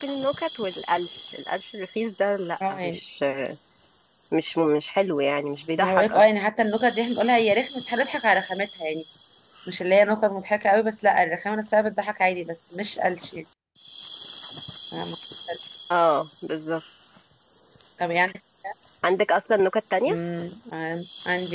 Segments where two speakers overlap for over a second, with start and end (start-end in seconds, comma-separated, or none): none